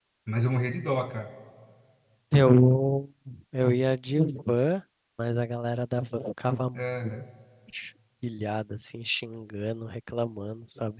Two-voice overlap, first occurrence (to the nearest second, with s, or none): none